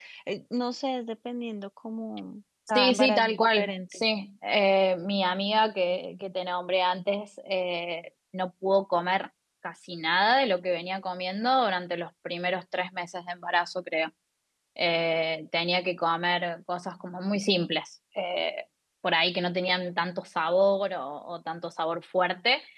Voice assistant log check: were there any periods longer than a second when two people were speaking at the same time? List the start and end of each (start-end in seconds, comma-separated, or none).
2.7-4.0